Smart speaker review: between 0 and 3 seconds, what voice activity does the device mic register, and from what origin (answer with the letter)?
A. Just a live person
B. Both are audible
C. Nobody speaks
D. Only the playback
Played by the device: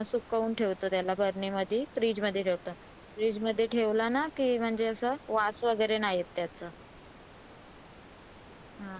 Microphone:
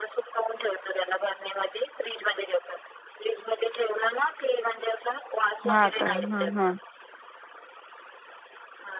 D